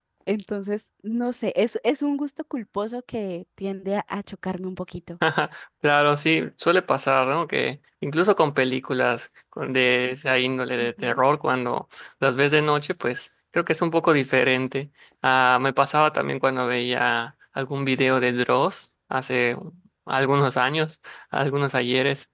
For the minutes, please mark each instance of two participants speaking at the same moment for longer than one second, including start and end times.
none

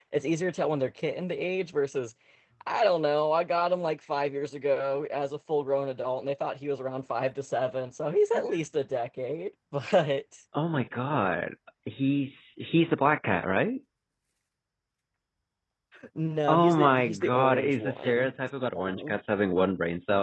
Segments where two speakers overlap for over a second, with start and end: 16.5-18.3

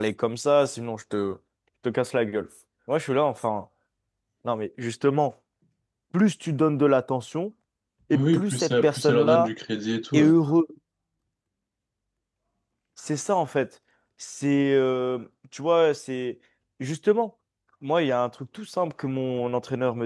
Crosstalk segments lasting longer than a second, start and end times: 8.1-9.5

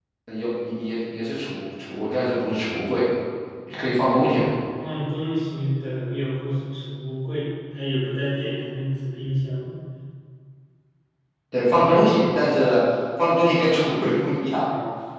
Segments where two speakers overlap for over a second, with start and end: none

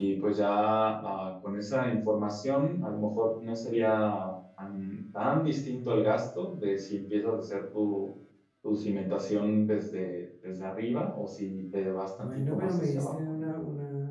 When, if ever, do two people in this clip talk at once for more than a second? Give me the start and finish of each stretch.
12.2-13.4

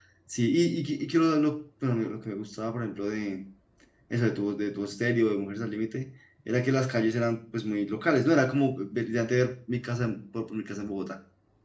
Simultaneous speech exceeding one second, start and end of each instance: none

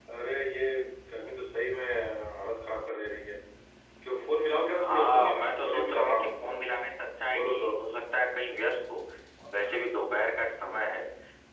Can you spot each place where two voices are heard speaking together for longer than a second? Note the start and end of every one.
4.8-6.6

